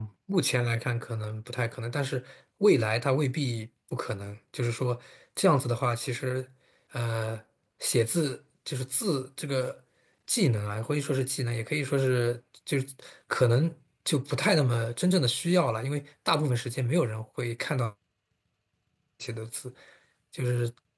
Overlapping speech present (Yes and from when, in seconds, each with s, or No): No